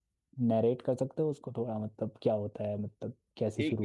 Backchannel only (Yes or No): No